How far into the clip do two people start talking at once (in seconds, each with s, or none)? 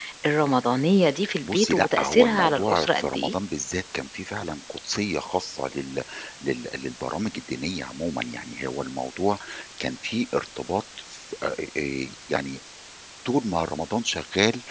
1.4 s